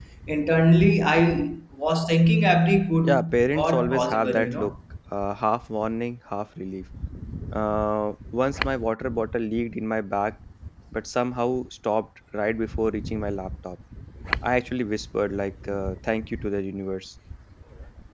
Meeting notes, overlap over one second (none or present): present